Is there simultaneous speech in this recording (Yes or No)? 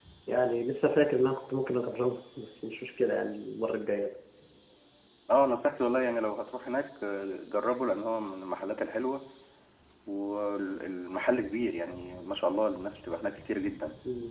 No